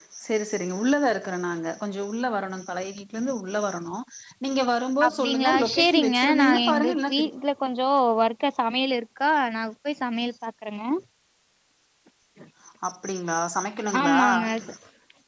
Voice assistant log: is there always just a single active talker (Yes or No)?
No